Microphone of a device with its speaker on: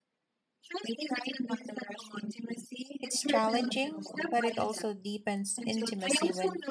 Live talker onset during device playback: 3.0 s

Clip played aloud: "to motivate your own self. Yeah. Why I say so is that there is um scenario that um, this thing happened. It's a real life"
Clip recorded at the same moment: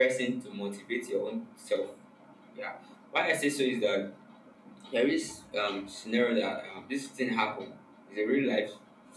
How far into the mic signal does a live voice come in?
none

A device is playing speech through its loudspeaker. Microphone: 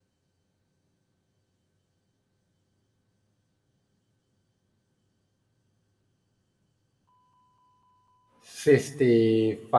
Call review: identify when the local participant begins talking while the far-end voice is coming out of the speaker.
8.4 s

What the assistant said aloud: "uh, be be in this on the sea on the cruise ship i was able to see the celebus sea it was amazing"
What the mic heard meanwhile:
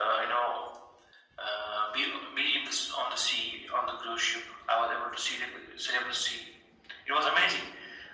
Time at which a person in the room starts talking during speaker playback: none

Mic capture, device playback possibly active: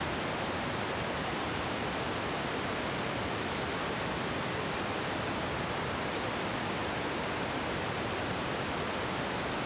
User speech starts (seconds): none

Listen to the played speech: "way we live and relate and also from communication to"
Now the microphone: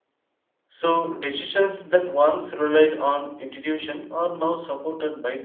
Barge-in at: 0.7 s

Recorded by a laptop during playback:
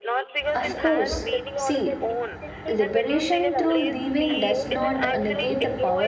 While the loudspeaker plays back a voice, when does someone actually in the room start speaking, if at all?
0.5 s

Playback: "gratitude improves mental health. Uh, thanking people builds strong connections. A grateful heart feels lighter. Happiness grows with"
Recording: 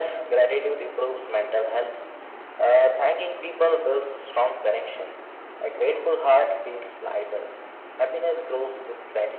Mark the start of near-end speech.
none

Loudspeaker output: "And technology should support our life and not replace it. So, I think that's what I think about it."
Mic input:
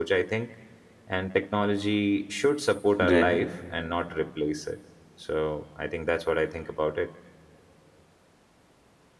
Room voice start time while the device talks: 3.0 s

